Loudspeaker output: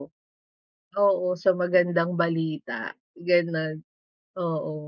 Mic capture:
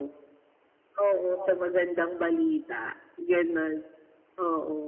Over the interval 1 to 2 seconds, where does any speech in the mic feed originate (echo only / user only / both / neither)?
both